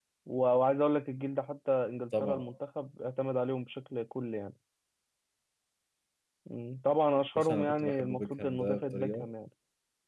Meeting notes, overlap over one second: present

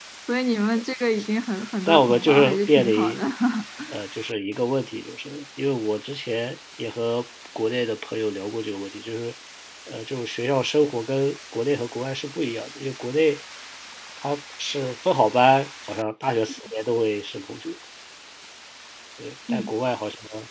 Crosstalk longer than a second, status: present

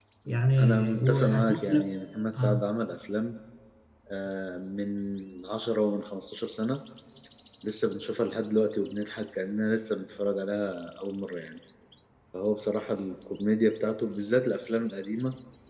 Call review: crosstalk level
present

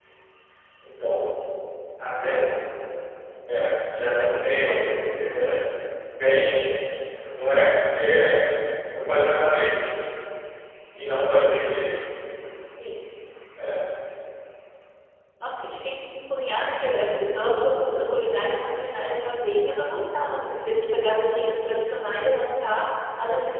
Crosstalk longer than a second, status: none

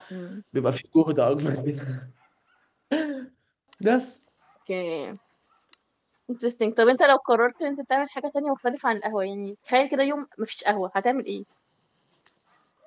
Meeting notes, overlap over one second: none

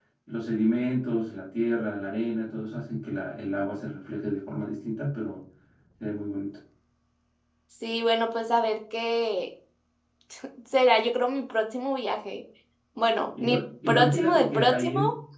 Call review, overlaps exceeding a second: present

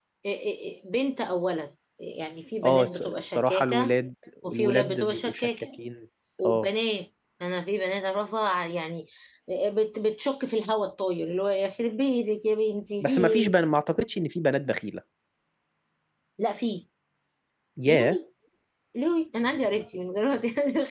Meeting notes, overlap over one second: present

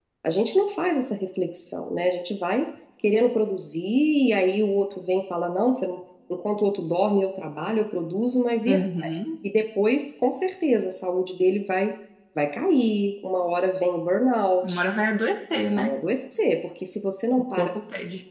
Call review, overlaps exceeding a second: none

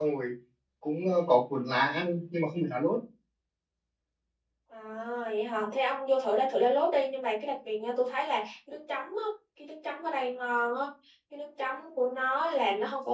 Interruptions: none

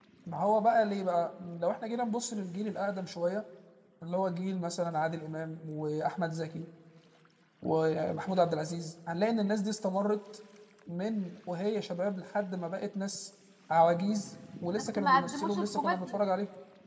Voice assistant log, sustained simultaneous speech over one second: present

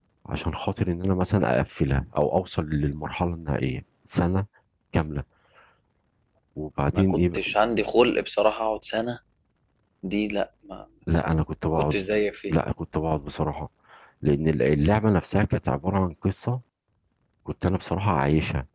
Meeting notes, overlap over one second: none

